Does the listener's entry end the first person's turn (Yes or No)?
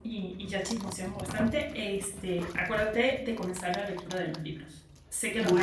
Yes